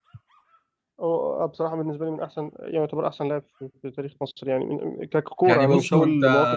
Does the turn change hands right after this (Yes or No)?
Yes